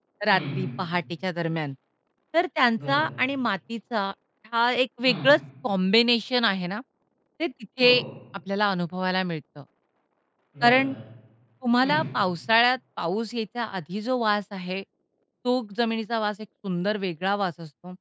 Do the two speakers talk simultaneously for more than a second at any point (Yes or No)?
No